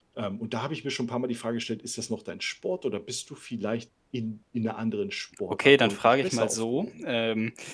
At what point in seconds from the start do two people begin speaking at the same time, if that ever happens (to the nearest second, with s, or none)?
6 s